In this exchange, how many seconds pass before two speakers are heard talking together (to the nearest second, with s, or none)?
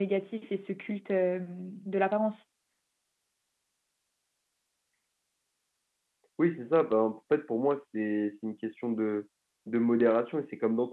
none